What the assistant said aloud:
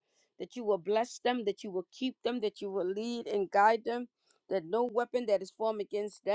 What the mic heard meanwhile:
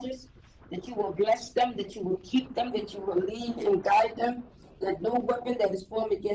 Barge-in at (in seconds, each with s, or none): none